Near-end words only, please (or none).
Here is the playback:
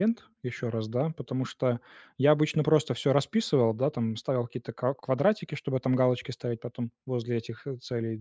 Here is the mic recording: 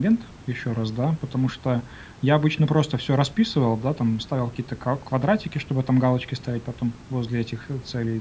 none